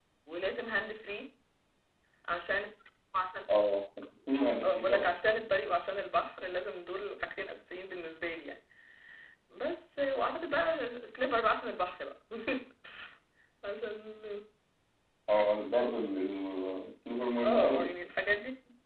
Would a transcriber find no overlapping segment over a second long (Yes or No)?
Yes